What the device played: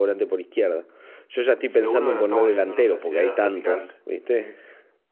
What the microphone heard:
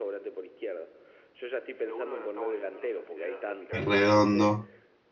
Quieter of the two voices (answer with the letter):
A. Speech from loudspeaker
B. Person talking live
A